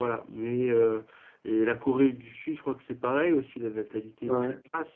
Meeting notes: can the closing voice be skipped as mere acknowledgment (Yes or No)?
Yes